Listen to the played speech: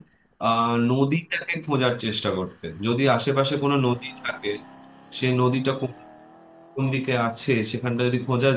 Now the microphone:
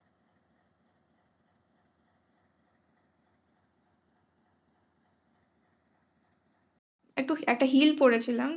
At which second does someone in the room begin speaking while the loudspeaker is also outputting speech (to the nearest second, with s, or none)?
7 s